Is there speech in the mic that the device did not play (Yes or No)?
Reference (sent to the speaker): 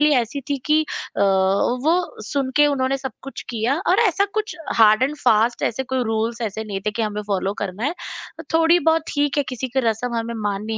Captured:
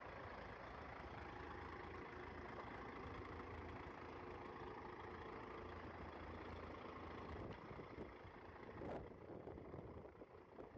No